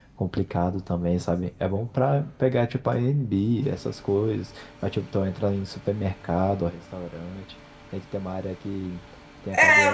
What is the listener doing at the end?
taking over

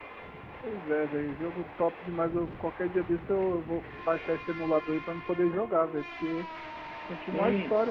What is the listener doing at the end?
taking over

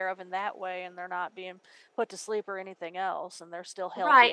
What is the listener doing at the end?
taking over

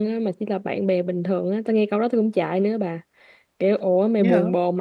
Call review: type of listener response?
listening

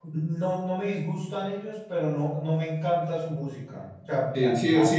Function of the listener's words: taking over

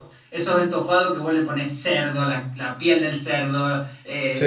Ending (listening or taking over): listening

